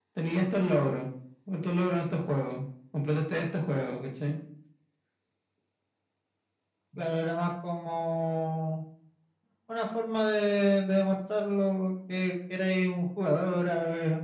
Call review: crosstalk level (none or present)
none